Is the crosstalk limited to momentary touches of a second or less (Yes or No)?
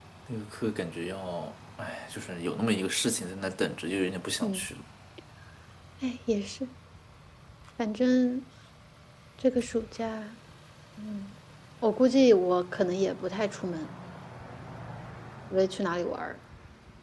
Yes